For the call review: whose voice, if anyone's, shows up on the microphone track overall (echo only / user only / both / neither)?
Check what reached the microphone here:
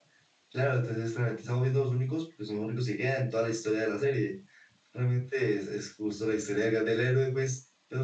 user only